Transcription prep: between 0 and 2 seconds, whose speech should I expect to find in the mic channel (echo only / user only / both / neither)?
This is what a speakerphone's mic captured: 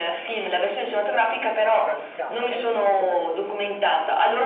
both